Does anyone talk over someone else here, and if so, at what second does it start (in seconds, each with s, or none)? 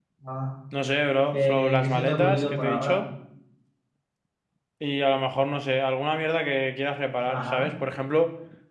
1.3 s